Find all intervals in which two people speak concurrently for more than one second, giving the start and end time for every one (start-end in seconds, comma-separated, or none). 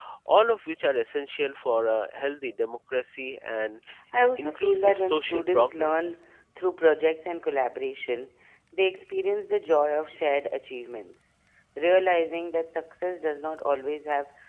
4.4-6.1